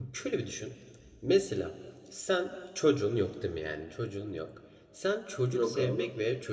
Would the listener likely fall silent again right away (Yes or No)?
Yes